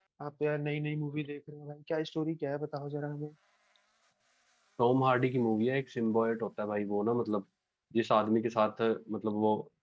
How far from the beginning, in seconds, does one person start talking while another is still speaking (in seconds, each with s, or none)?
none